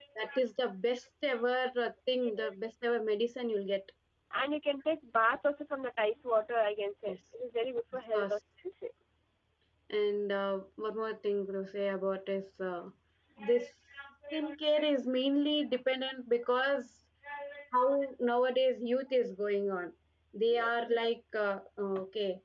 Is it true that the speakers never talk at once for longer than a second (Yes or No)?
Yes